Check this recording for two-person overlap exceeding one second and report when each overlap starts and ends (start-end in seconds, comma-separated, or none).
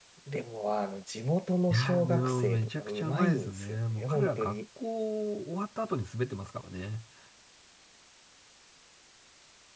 1.7-4.6